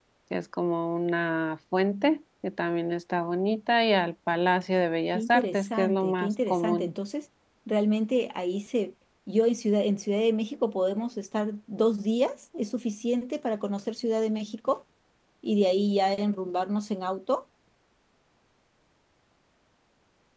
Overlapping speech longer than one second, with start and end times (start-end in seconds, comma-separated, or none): 5.1-6.9